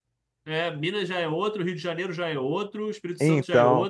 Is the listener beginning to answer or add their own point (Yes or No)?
No